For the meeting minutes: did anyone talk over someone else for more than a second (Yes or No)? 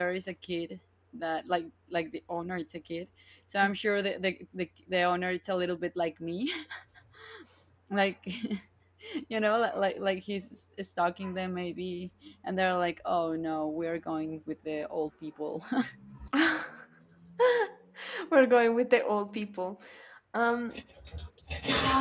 No